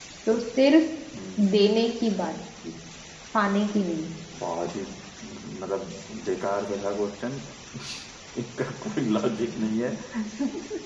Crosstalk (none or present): none